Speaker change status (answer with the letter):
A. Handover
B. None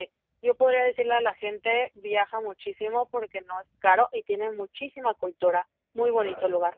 A